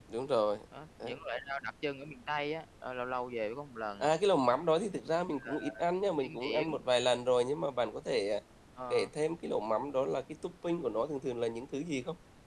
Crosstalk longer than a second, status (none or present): none